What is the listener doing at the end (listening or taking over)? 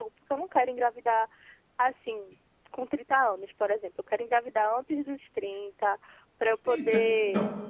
listening